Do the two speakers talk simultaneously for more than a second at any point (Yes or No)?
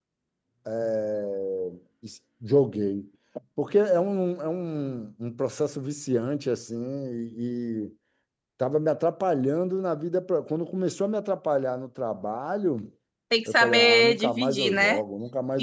Yes